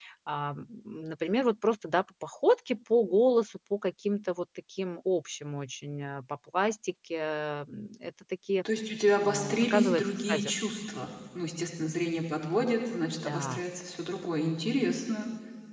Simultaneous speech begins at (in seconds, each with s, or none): 9.2 s